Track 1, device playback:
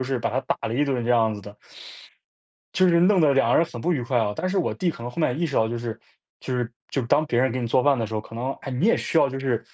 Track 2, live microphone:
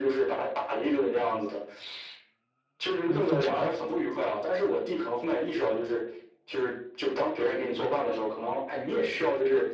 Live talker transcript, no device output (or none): 可能就是